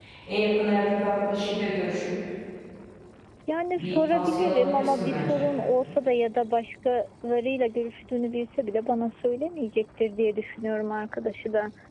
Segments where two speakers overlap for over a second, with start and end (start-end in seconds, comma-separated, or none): 3.8-5.5